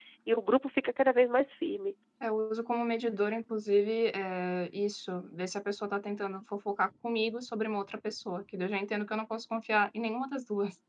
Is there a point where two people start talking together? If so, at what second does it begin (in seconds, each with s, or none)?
none